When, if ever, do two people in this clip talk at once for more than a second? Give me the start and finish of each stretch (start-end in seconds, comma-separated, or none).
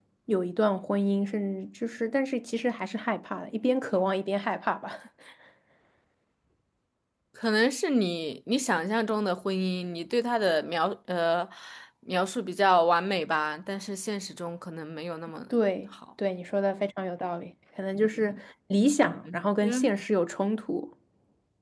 none